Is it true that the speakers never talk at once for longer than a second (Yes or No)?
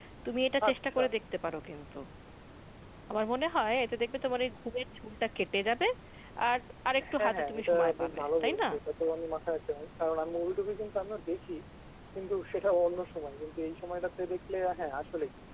No